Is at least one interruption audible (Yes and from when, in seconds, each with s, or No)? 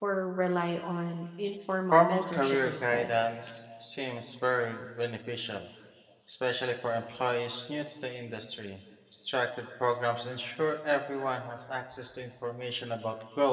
Yes, from 1.9 s